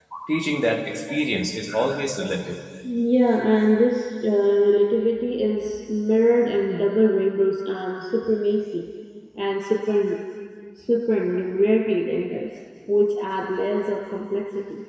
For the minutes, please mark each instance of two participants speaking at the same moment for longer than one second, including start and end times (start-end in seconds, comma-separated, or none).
none